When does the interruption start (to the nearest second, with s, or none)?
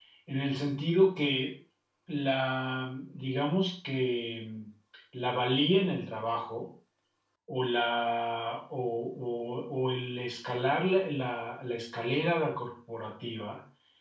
none